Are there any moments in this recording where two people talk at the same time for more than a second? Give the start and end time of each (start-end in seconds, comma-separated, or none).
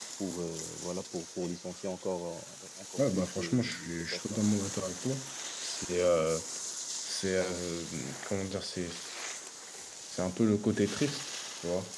3.0-4.4